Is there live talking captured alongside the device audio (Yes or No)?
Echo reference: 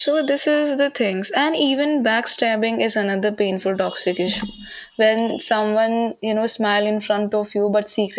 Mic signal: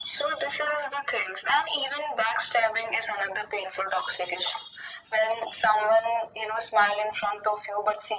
No